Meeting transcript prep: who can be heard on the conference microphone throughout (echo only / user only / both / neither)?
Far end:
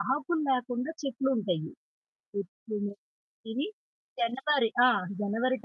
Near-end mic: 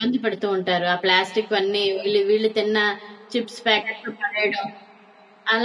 user only